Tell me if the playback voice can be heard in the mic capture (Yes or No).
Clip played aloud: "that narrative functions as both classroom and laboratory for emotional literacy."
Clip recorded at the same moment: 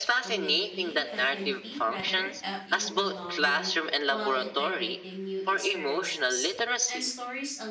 Yes